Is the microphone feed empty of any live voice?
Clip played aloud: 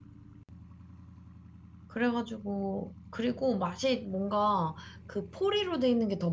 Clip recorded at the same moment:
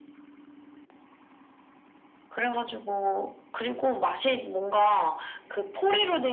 Yes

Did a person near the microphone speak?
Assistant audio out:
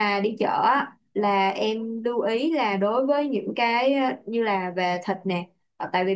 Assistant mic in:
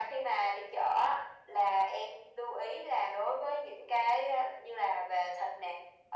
No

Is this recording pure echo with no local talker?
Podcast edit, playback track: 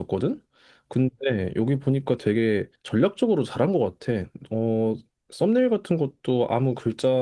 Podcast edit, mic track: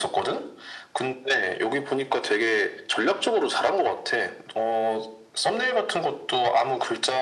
Yes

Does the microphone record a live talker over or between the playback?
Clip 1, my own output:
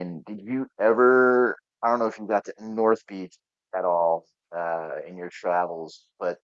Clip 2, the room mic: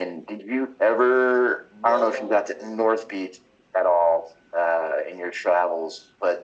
Yes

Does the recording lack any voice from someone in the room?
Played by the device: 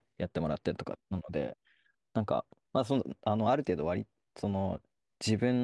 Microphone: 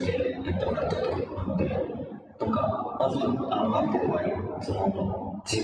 Yes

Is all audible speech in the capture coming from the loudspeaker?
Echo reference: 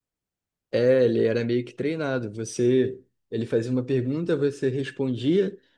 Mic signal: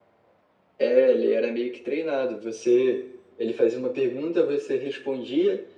Yes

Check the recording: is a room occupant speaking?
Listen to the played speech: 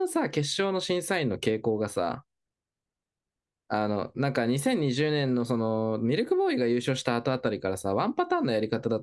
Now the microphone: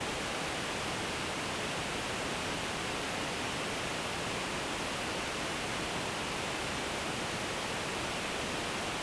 No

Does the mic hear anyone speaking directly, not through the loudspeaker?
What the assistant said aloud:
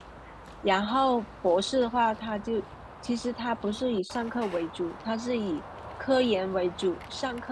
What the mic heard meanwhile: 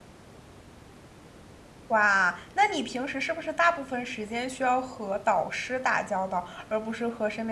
Yes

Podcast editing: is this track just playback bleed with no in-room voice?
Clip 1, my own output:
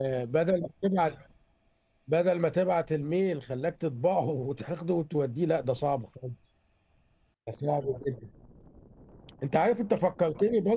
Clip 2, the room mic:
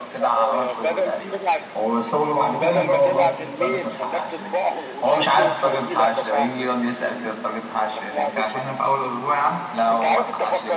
No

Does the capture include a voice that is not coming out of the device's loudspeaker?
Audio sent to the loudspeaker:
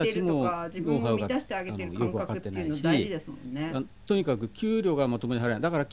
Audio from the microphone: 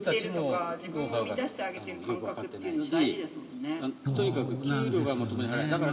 Yes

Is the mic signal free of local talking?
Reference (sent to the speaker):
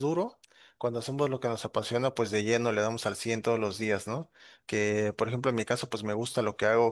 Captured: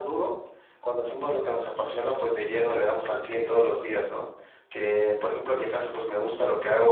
Yes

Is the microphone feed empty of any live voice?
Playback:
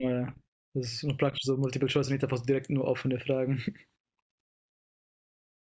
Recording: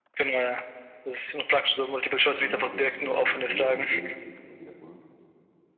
No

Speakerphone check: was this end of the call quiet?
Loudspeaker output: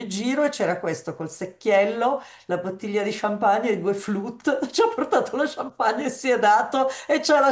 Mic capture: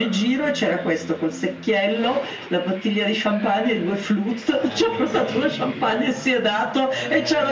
No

